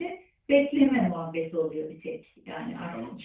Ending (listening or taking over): listening